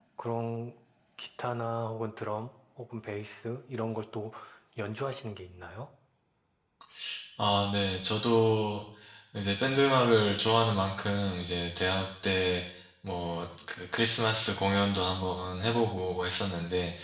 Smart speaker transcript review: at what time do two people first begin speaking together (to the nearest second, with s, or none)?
none